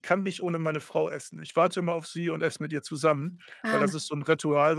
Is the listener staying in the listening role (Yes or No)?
Yes